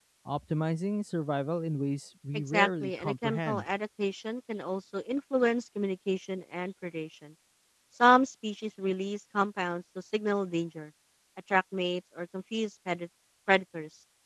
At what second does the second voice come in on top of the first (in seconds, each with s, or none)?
2.3 s